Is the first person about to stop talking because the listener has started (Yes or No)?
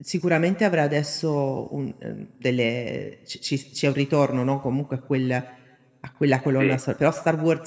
No